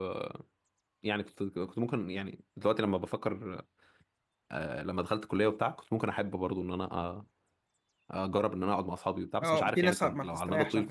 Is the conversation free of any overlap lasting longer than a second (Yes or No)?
No